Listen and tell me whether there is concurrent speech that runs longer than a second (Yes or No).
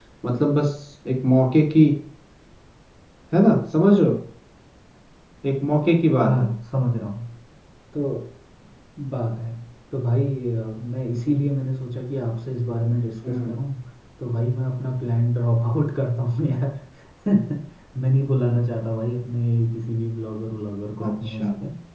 No